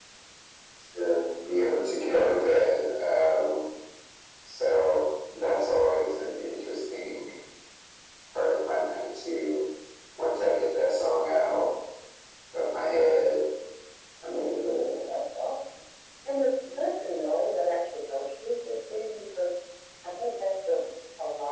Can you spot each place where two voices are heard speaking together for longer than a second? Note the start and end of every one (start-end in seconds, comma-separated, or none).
none